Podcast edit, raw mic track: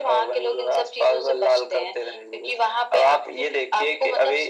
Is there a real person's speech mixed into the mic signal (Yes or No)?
No